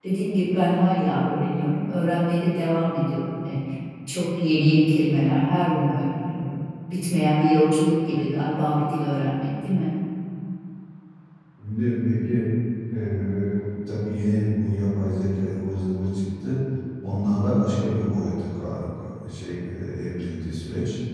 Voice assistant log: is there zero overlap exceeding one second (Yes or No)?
Yes